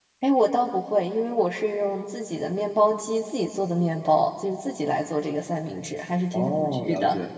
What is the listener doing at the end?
taking over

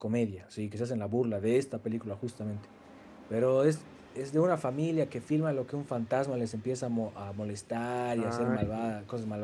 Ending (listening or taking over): listening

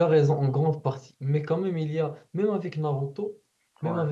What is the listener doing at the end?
listening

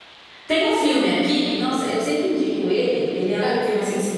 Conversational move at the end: listening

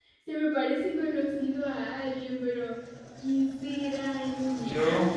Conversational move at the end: listening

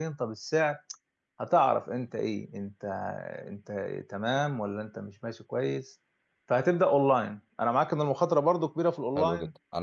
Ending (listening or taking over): taking over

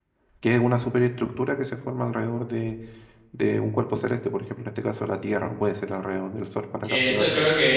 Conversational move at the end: taking over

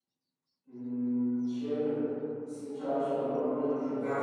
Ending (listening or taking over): taking over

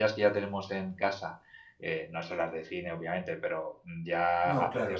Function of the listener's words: listening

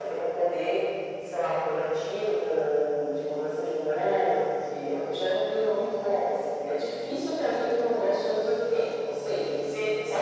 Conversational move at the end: taking over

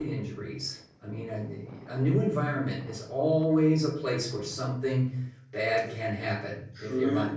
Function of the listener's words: taking over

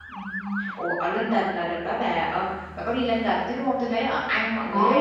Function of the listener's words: listening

